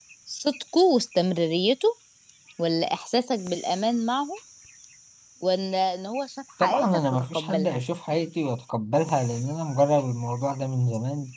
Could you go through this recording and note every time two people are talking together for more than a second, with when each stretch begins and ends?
6.6-7.8

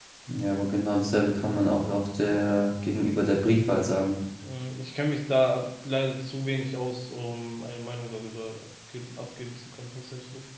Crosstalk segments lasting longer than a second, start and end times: none

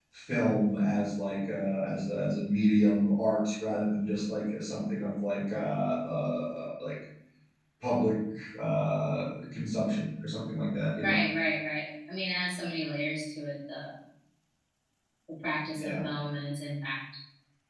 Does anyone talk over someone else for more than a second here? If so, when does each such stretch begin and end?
none

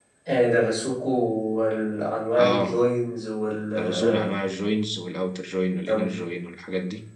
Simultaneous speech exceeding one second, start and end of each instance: none

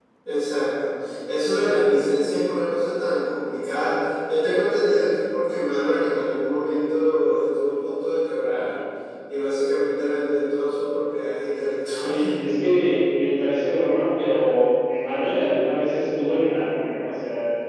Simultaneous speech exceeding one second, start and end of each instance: none

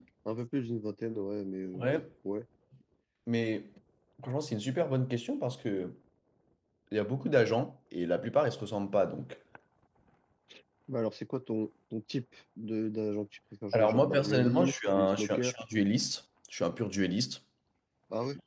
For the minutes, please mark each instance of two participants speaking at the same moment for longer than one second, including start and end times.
13.7-15.5

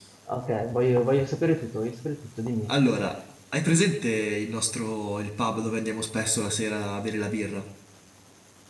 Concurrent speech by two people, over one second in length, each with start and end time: none

